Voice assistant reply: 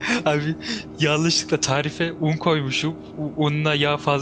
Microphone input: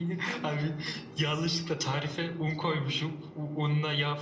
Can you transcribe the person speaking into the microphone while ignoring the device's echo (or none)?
none